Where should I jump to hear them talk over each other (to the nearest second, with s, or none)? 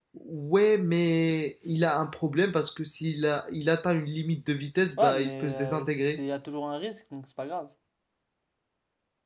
5 s